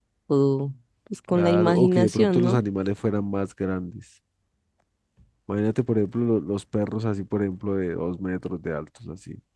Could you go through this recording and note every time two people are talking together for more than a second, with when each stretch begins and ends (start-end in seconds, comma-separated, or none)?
1.3-2.6